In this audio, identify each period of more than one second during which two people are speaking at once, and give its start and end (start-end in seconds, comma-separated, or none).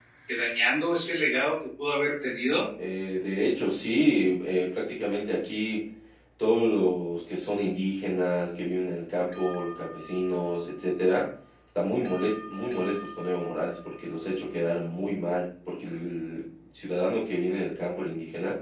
none